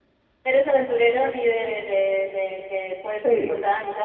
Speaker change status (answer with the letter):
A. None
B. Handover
B